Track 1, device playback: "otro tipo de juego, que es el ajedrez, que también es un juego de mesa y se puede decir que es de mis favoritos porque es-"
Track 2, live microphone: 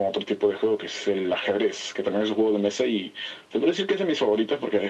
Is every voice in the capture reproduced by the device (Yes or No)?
Yes